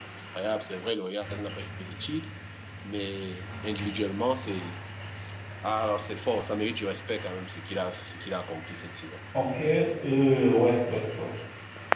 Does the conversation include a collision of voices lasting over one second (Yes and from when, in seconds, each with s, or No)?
No